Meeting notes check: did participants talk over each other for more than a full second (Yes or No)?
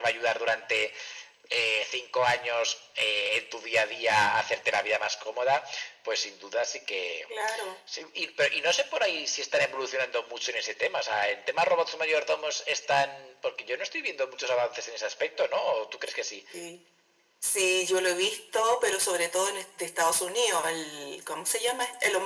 No